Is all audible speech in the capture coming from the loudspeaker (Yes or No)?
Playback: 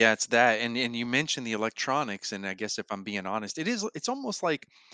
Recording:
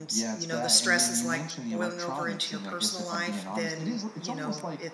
No